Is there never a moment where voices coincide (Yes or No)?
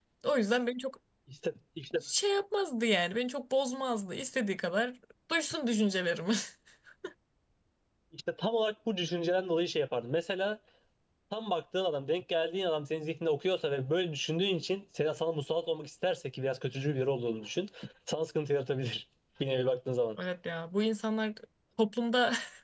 Yes